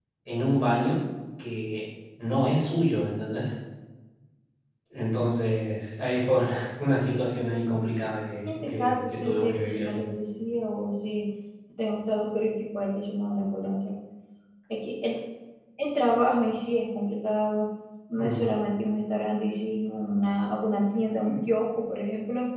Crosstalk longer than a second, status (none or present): present